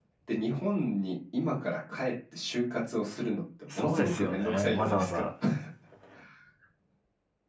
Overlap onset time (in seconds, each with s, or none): 3.7 s